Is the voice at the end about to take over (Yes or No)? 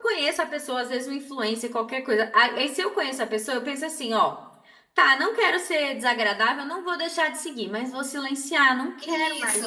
Yes